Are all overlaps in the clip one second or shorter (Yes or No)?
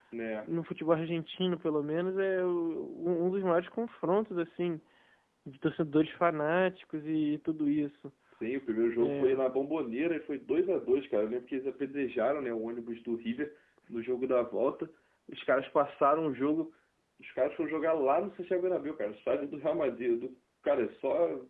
Yes